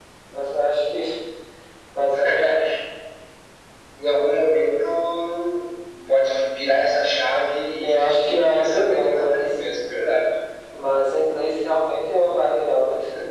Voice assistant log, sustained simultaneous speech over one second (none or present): present